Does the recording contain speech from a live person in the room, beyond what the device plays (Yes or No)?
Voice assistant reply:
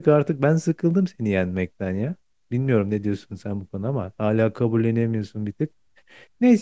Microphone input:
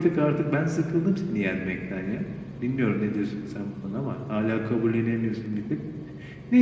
No